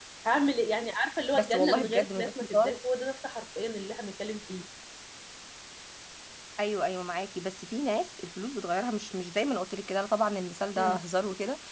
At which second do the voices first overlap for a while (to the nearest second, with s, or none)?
1 s